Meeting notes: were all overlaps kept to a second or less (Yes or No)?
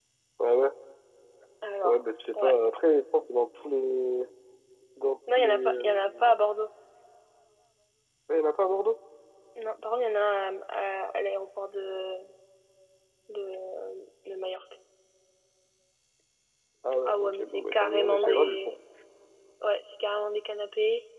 No